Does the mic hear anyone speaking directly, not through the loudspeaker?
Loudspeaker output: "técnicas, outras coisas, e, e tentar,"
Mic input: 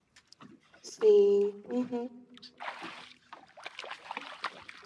Yes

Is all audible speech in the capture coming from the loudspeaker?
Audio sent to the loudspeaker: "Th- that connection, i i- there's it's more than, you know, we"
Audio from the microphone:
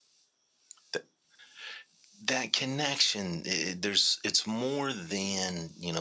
Yes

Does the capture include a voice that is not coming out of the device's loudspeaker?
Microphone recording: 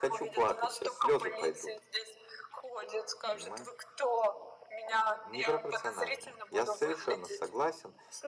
Yes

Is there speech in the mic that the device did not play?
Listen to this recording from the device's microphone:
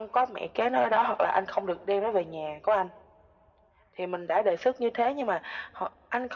No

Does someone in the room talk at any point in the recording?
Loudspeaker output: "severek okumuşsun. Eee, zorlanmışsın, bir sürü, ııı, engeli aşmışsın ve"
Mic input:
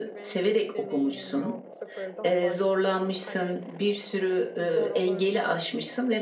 Yes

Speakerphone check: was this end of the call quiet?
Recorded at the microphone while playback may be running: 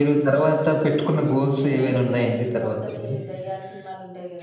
No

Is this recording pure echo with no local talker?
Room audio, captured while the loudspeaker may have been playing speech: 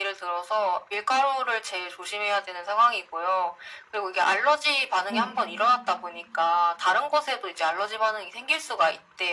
No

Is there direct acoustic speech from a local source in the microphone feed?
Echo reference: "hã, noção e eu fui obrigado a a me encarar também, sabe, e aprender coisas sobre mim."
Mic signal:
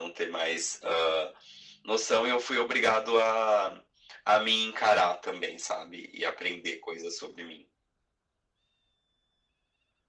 No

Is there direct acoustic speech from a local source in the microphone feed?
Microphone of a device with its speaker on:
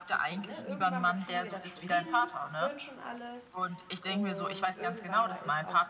Yes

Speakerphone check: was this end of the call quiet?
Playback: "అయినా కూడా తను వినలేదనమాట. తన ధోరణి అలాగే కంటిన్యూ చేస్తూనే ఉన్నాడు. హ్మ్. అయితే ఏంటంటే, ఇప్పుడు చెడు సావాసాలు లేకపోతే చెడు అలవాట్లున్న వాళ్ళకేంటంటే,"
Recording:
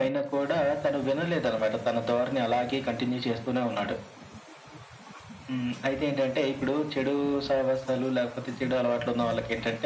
Yes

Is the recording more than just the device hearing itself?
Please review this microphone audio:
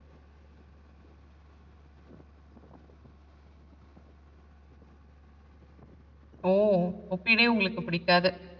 Yes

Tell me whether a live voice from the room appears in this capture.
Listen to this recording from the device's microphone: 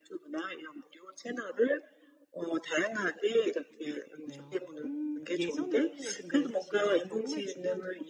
Yes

